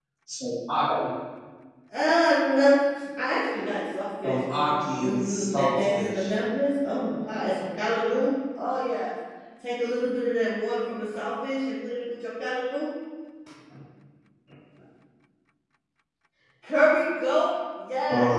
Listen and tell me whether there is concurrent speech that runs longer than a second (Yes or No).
Yes